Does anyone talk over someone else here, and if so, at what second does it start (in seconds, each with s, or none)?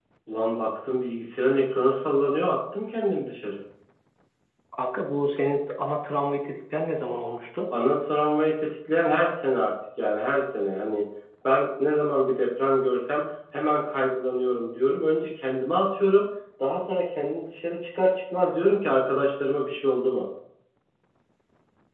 none